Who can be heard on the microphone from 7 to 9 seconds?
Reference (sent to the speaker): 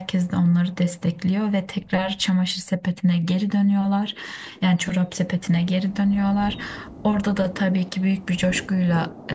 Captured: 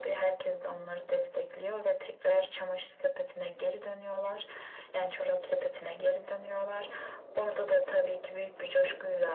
echo only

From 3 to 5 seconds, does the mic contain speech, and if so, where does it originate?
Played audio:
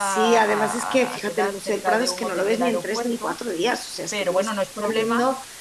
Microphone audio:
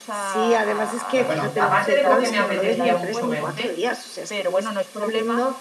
both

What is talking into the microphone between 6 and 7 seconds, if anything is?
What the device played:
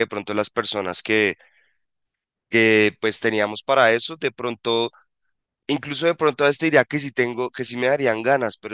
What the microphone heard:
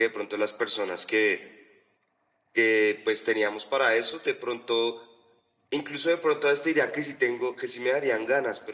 echo only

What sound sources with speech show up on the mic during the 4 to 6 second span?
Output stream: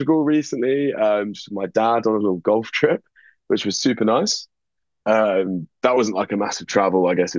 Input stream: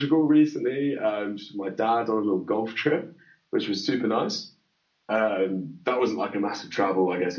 echo only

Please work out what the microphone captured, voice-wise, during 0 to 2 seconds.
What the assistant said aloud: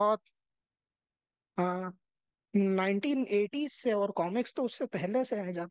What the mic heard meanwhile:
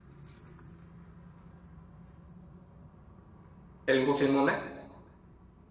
neither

